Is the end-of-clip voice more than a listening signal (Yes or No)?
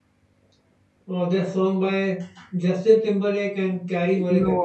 Yes